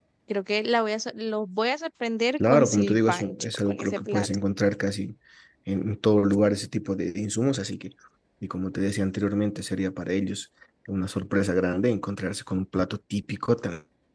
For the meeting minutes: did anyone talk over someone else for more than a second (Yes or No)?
Yes